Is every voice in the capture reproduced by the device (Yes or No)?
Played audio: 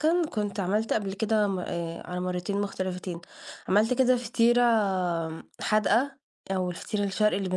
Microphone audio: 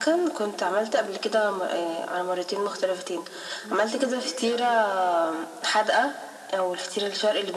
No